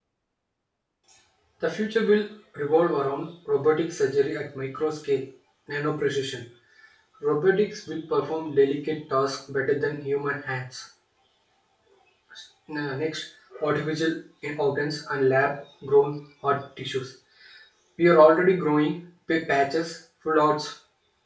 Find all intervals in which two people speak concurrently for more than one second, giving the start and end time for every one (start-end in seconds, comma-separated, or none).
none